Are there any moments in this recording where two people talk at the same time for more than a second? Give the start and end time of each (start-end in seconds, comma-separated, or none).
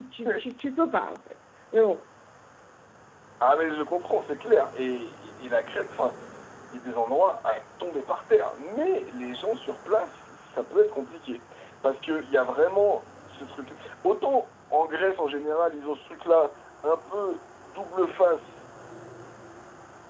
none